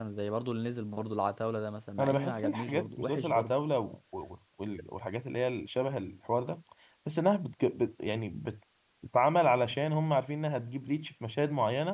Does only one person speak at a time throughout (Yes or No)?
No